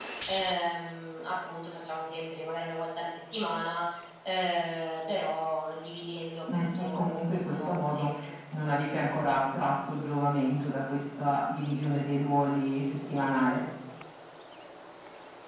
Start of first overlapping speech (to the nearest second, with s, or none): 6 s